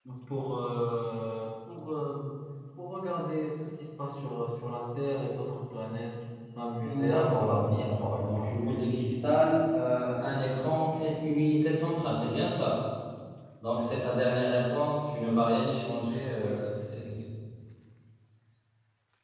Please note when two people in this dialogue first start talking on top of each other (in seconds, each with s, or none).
6.8 s